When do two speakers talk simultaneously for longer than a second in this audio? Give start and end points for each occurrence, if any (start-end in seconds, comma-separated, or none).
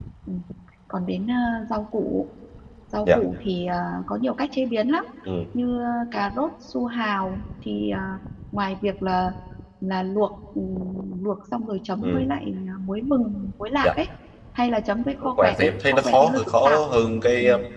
15.2-16.8